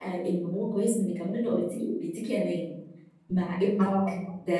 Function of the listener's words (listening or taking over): listening